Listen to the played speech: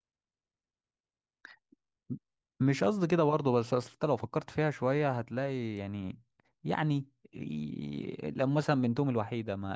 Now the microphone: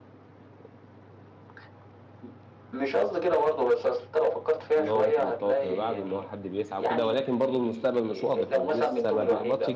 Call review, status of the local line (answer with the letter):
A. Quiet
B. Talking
B